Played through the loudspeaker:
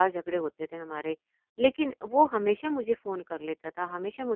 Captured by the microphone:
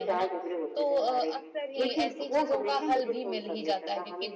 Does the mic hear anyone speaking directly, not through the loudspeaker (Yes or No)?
Yes